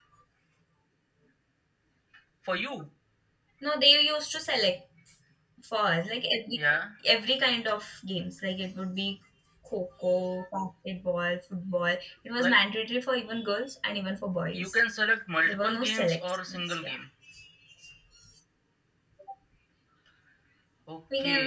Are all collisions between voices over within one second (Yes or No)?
No